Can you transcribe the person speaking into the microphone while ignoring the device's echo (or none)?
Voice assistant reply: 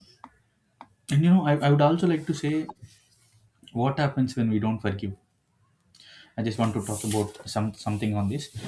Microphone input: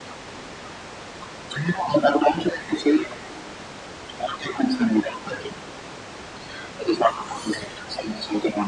none